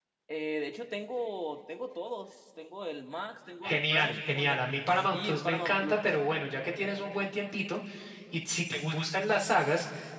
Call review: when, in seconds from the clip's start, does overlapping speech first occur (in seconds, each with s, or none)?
3.6 s